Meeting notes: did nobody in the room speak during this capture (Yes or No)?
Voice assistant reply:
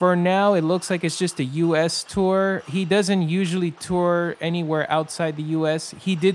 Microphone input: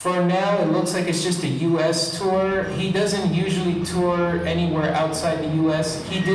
Yes